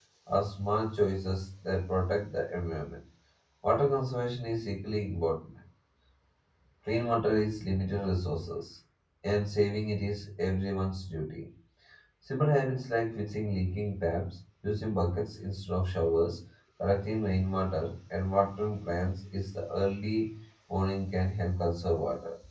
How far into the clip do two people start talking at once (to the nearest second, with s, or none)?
none